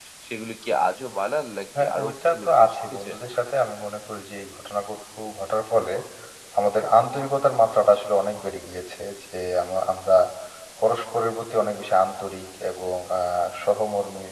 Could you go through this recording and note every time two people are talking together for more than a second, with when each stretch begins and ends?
1.8-3.1

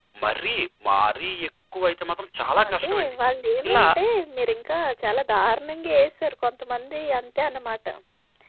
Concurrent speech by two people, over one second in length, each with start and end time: none

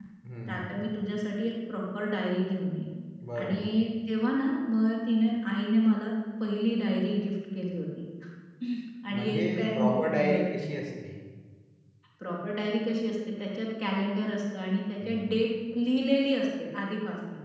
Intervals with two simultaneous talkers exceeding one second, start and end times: 9.1-10.4

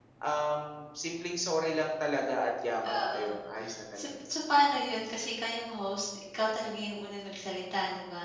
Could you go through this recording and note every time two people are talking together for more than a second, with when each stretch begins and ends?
none

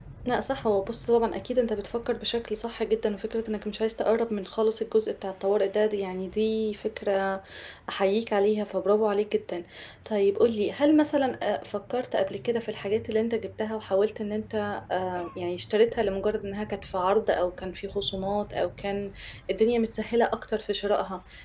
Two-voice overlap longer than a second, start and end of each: none

